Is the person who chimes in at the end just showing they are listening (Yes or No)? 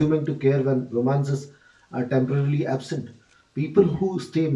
Yes